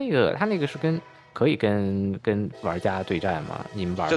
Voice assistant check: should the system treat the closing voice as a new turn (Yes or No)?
Yes